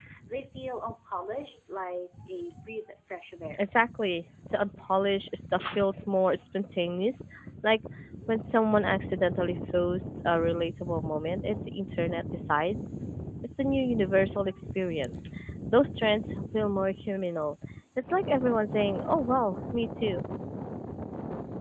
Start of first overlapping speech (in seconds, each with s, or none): none